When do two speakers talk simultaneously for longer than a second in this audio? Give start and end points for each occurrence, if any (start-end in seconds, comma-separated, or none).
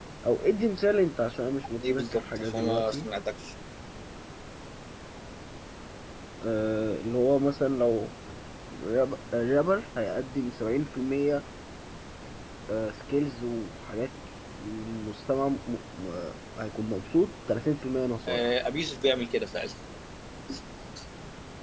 1.8-3.0